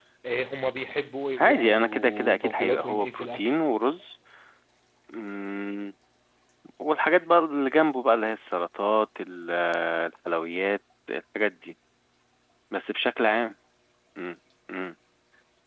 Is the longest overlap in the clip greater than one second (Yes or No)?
Yes